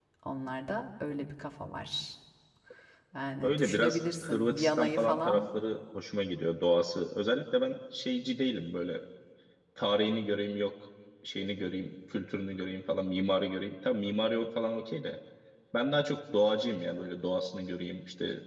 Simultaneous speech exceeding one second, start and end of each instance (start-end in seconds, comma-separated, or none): 3.4-5.4